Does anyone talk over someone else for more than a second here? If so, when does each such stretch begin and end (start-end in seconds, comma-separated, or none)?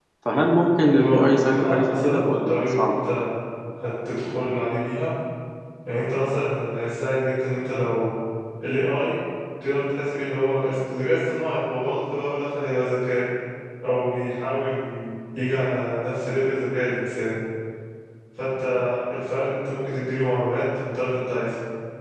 1.0-3.0